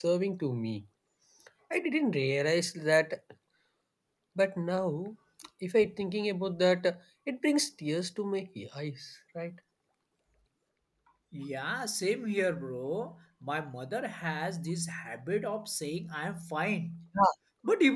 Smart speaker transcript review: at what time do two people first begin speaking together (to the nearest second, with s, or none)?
none